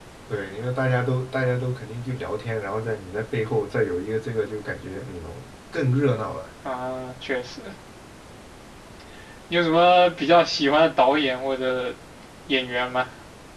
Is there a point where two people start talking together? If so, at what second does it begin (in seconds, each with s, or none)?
none